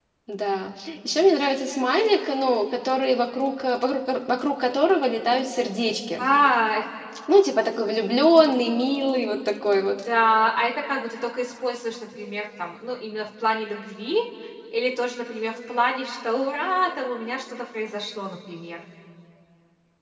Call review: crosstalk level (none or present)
none